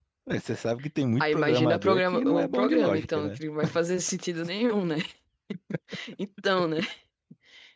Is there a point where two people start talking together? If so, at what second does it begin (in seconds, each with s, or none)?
1.2 s